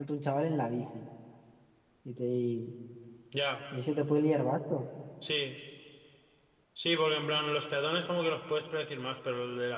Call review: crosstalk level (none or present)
none